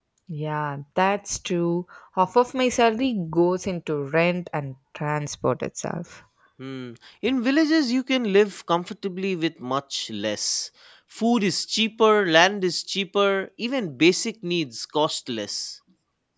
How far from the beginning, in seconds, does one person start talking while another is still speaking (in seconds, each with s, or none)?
none